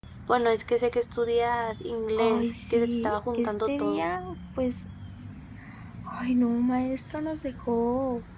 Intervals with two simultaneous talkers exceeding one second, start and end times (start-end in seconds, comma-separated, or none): 2.2-4.0